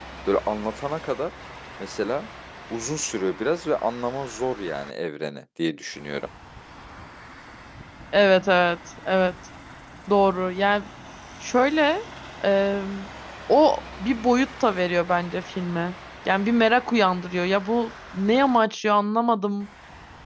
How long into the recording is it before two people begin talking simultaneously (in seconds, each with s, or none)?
none